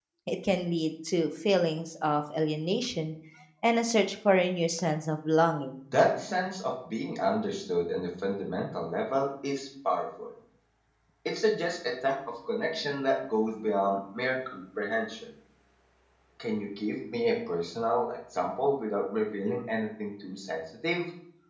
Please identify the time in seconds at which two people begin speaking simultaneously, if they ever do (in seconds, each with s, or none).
none